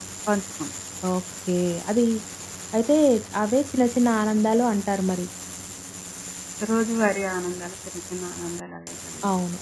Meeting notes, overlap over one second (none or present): none